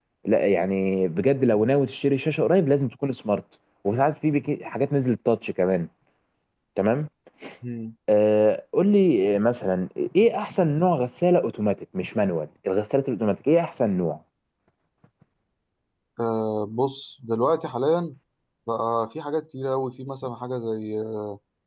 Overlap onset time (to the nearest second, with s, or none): none